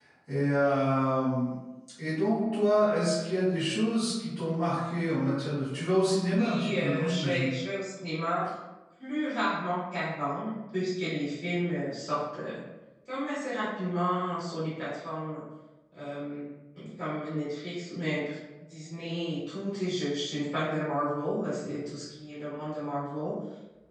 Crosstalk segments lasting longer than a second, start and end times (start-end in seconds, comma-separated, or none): 6.3-7.5